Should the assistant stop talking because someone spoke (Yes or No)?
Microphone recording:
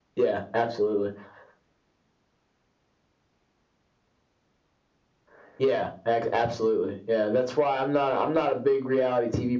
No